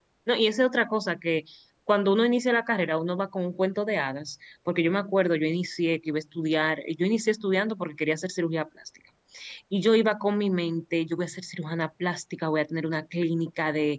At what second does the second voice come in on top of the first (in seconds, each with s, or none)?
none